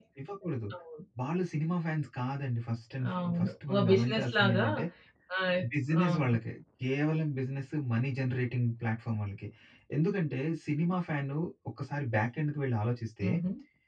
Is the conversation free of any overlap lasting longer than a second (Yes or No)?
No